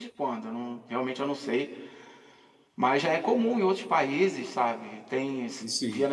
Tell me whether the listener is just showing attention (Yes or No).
Yes